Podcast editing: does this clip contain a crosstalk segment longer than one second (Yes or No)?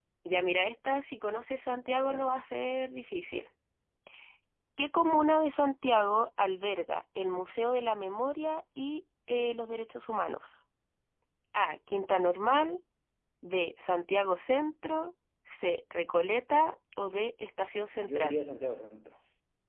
No